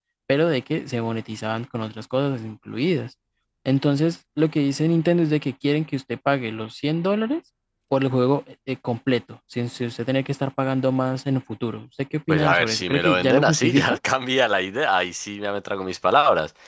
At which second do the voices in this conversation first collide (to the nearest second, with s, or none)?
12 s